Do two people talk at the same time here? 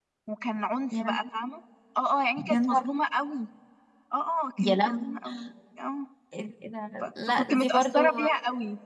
Yes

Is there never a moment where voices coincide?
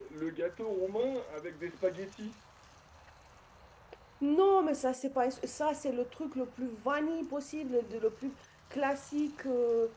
Yes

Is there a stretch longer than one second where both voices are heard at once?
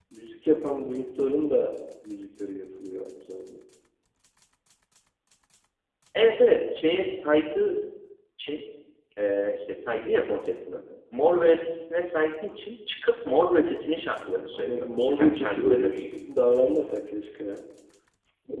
Yes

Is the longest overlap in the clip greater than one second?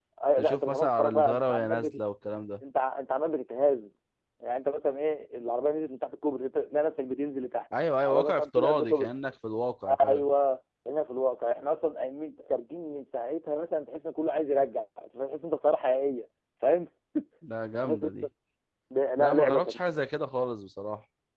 Yes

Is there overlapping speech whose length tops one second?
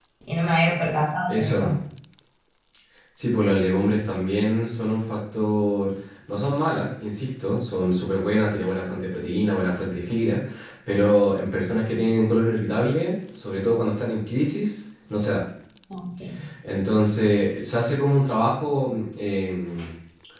No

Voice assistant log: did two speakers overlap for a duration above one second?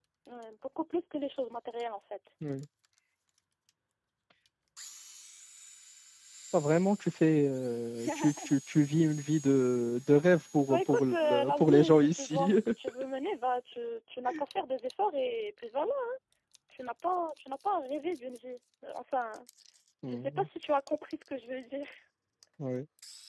Yes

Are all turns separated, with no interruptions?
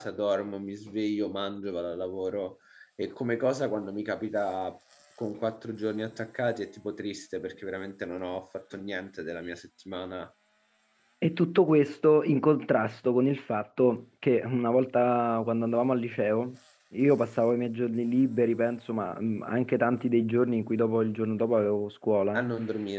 Yes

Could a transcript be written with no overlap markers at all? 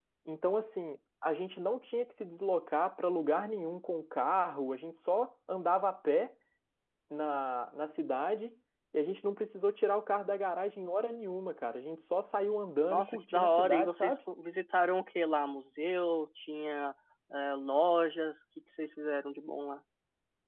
No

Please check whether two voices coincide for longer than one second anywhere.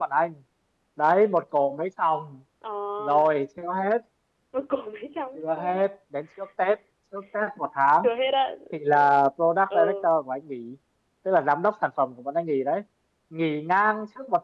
No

